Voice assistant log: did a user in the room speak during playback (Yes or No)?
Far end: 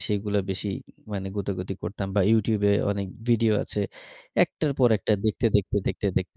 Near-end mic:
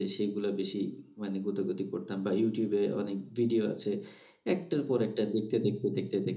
No